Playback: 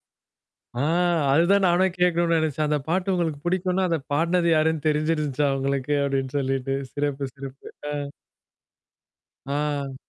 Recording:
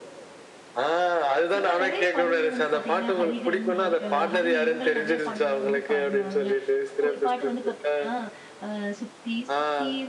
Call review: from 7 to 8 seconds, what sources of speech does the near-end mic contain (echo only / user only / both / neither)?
both